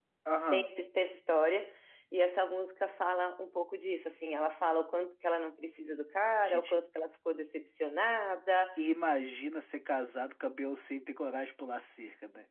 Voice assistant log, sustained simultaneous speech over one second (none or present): none